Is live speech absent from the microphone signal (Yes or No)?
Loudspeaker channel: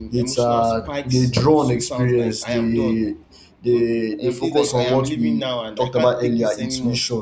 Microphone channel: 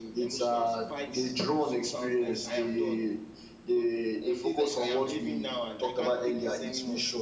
No